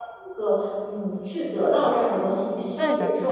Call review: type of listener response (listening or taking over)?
taking over